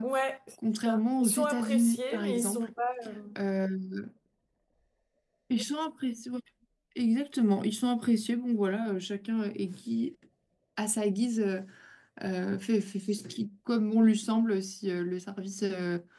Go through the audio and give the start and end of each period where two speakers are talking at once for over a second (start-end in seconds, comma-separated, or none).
0.8-2.7